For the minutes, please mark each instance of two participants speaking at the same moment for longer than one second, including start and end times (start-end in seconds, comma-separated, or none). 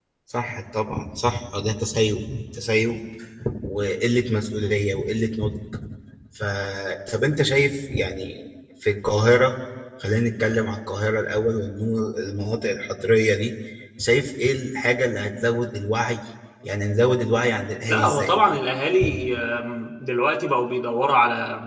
none